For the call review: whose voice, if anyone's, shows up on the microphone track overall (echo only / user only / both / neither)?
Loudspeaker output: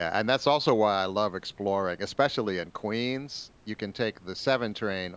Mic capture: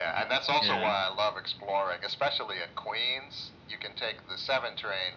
both